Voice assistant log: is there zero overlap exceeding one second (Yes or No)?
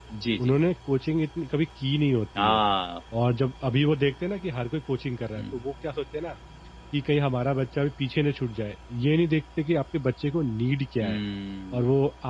Yes